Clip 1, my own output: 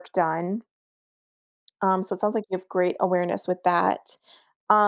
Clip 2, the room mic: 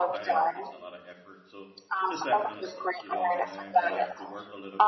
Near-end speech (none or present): present